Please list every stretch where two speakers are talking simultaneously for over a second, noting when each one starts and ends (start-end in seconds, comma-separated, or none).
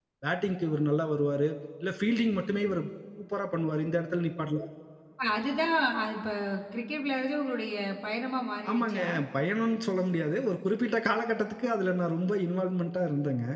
none